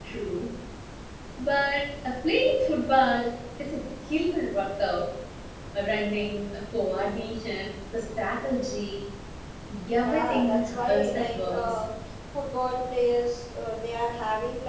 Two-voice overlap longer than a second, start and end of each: 10.0-11.8

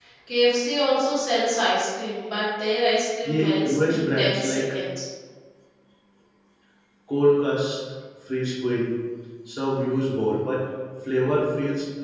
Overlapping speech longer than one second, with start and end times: 3.2-4.7

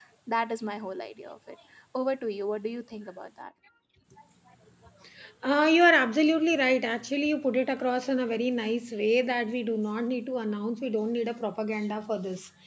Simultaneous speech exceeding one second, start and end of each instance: none

